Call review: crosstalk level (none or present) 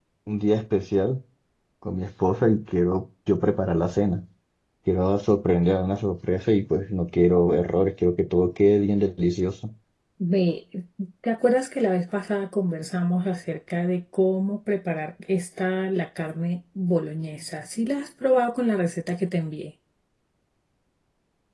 none